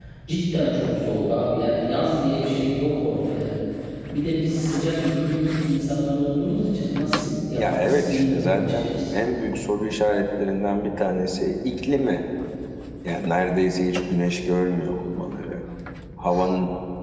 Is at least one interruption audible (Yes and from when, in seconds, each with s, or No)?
Yes, from 7.6 s